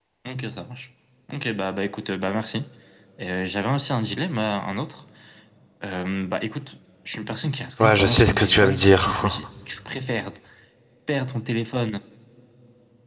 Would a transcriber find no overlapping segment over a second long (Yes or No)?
No